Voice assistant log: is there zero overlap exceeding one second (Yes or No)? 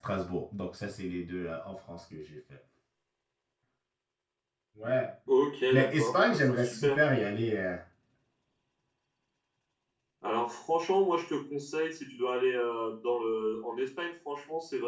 No